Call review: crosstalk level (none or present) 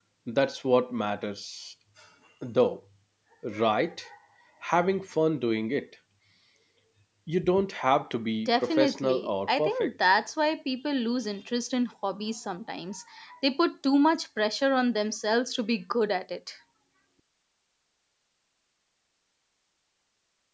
present